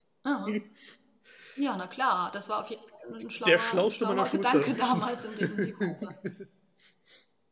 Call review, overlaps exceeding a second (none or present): present